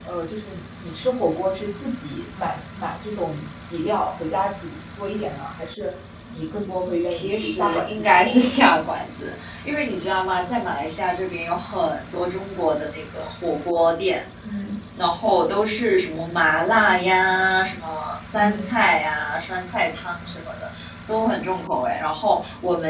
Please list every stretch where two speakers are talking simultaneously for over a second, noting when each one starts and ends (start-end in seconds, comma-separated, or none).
7.1-8.7